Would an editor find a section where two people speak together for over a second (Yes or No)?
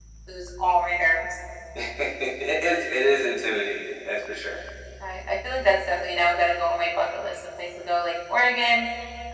No